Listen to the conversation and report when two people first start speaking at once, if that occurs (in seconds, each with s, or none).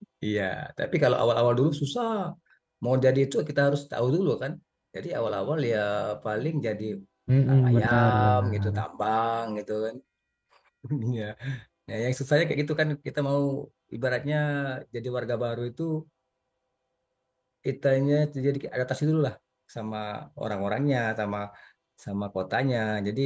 7.5 s